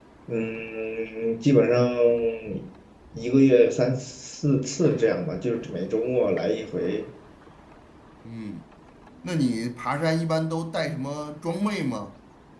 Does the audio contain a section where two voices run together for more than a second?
No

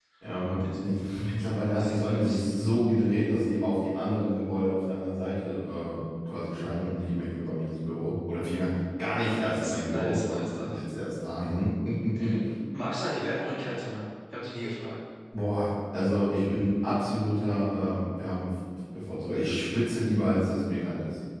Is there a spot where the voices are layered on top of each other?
Yes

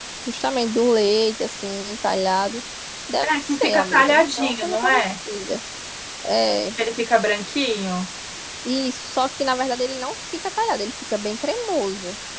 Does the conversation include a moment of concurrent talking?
Yes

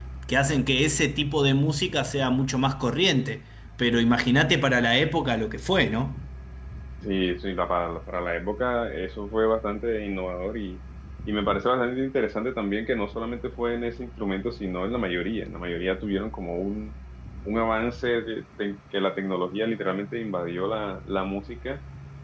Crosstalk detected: No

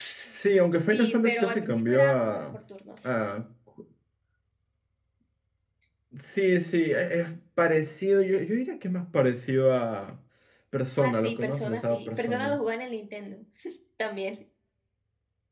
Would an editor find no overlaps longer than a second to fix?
No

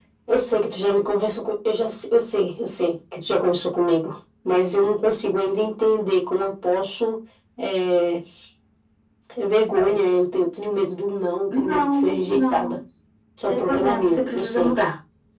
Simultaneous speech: Yes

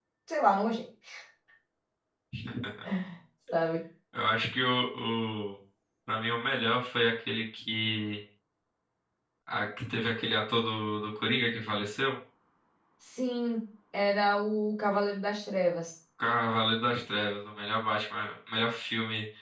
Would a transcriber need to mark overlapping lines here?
No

